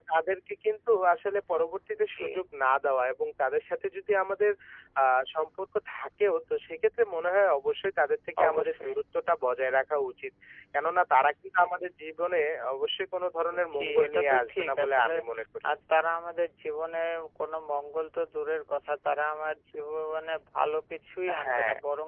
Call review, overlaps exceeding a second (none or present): present